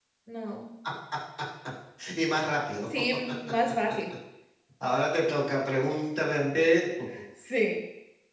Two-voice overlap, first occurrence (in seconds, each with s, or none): none